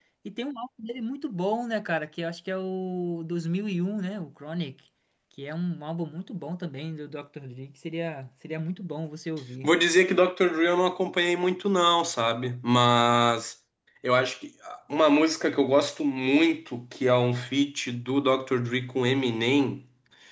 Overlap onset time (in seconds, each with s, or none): none